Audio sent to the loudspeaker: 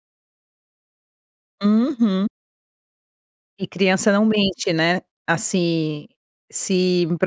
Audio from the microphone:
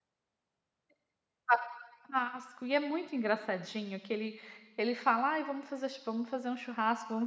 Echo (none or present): none